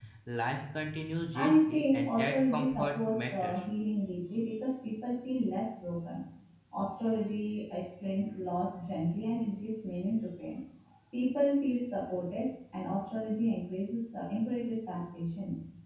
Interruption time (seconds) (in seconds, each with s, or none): 1.3 s